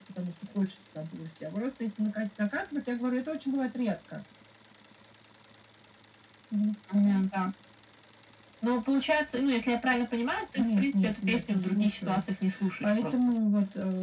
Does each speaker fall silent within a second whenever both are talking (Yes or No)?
No